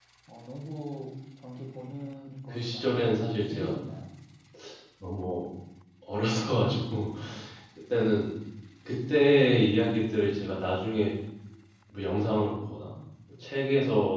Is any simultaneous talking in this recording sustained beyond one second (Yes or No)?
Yes